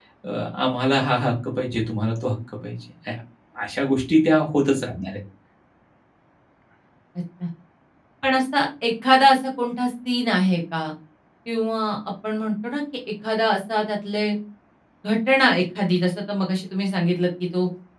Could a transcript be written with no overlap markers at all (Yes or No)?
Yes